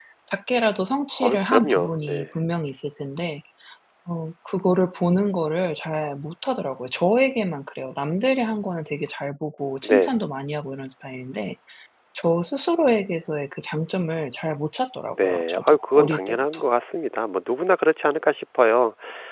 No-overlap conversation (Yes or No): No